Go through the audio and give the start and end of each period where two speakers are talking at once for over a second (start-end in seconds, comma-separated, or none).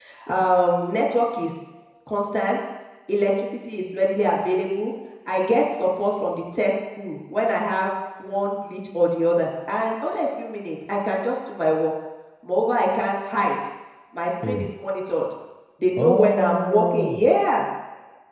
16.0-17.3